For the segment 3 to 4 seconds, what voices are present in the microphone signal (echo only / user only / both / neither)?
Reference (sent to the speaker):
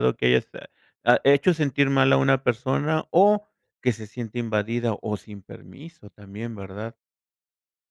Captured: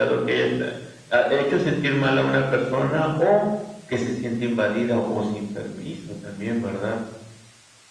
echo only